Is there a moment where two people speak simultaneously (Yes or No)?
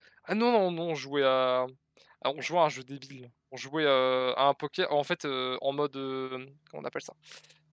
No